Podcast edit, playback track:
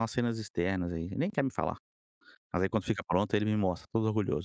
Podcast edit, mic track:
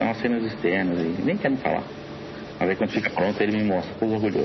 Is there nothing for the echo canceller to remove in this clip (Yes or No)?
No